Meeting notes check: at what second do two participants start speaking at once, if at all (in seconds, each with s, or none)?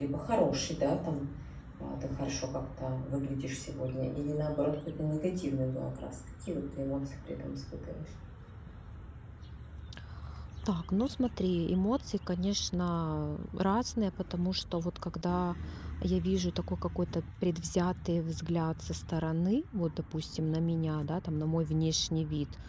none